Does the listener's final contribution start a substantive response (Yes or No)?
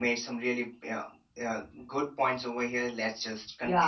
No